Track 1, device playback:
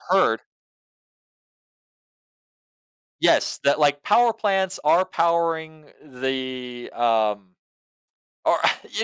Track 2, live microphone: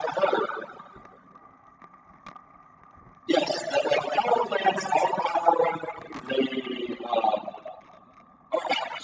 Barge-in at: none

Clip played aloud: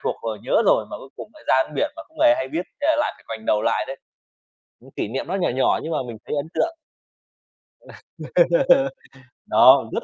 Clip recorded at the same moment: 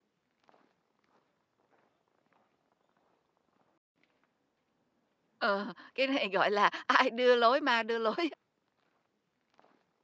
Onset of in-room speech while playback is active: 5.4 s

